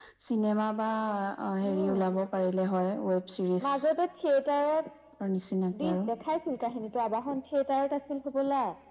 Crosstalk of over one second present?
No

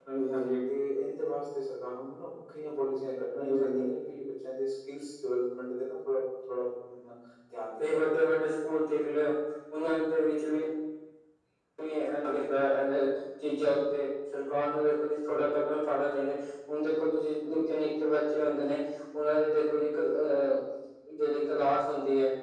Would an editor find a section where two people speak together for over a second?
No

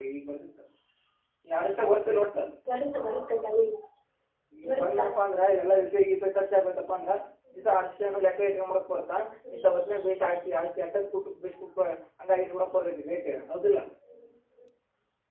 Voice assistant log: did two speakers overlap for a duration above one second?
No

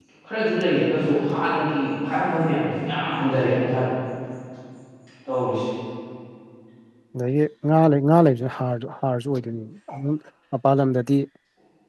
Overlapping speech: No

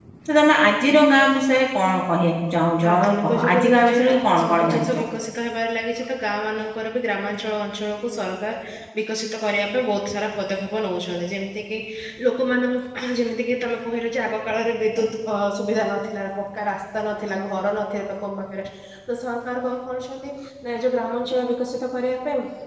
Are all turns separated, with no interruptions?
No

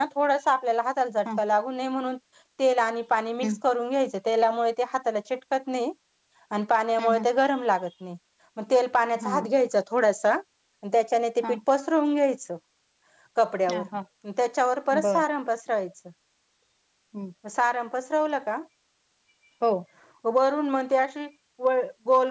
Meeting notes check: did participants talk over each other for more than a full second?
No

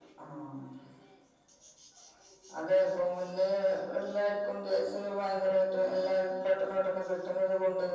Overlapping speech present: No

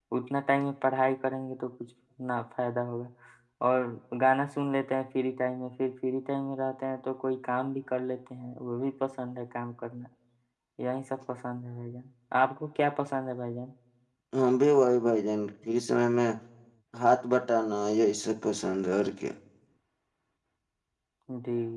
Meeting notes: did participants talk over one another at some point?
No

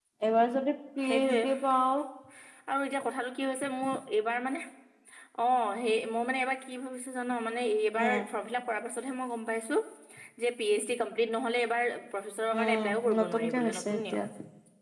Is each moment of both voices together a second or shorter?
No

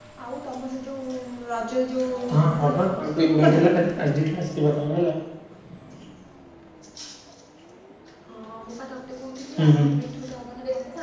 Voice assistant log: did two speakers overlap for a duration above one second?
Yes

